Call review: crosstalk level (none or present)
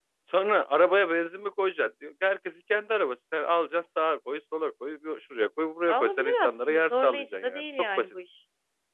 present